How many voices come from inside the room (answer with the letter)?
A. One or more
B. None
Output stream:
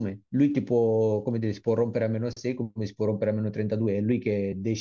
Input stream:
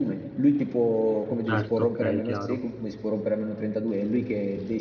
A